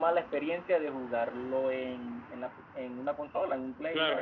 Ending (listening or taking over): taking over